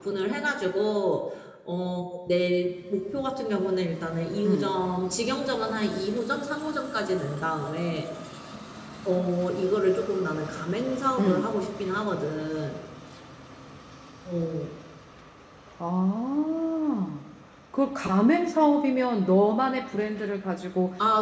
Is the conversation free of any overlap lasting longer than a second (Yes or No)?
Yes